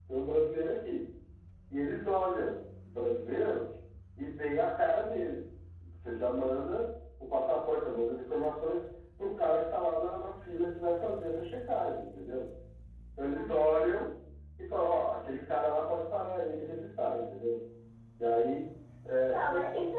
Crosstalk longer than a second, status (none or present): none